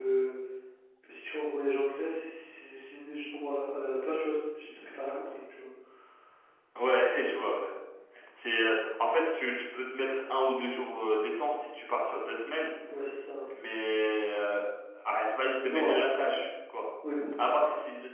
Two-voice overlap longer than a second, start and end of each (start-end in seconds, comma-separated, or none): none